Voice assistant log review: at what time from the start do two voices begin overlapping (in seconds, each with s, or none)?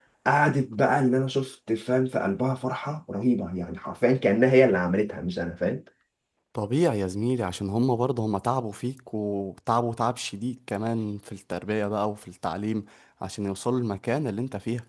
none